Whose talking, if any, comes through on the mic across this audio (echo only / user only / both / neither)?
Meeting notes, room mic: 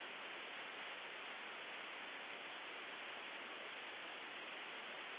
neither